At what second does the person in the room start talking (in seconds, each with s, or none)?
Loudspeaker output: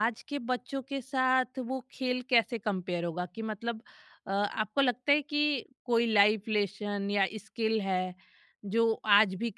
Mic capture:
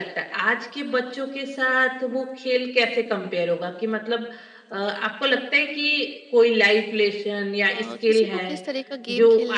7.7 s